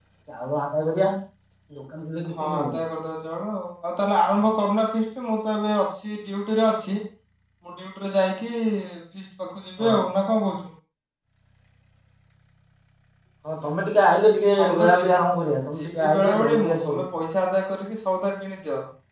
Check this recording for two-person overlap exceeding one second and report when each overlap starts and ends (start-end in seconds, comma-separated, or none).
15.8-17.0